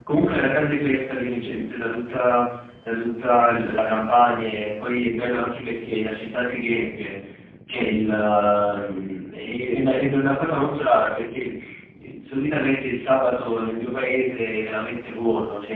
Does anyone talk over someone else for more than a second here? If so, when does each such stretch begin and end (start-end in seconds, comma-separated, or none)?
none